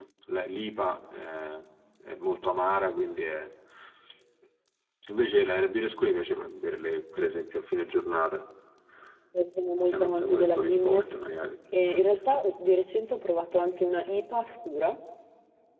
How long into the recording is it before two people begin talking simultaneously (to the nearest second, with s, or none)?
10 s